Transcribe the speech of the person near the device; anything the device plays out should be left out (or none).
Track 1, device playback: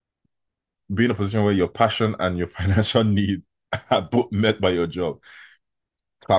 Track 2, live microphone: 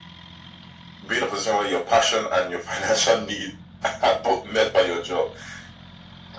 none